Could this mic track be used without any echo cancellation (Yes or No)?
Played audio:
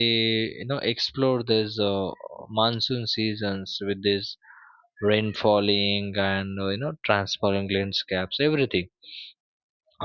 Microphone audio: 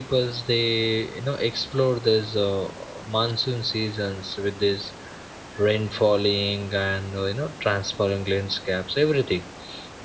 No